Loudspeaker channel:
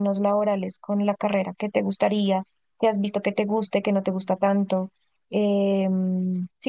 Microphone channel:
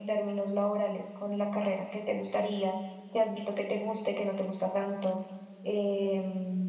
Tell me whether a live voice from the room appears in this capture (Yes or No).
No